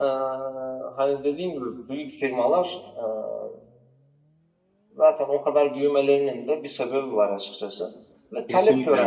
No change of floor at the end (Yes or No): Yes